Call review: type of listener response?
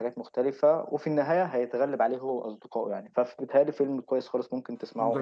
taking over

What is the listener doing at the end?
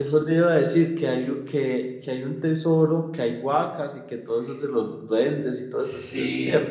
taking over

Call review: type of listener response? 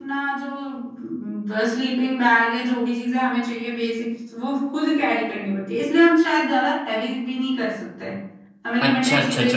taking over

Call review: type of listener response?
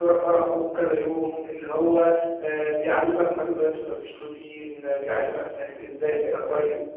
taking over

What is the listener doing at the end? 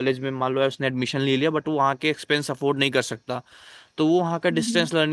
listening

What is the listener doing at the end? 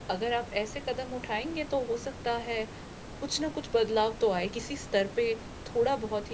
listening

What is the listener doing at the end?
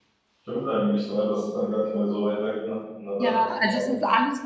taking over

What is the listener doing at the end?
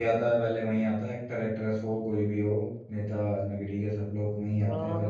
taking over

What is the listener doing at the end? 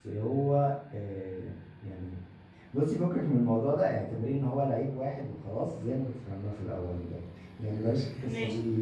listening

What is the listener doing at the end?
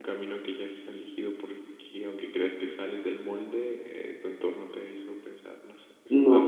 taking over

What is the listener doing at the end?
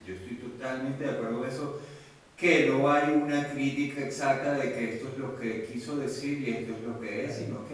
listening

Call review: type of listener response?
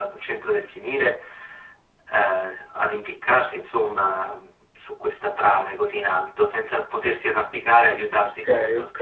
taking over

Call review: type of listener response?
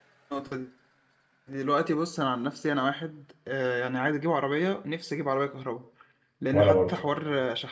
listening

